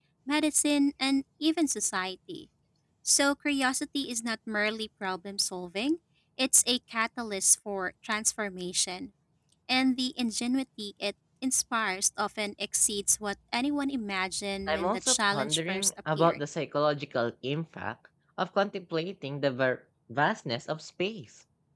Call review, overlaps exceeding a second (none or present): present